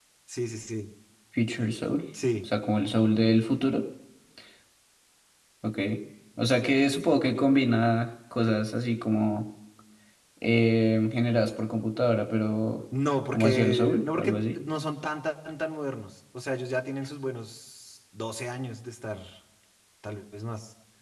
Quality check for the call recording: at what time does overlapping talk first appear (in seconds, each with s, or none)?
13.3 s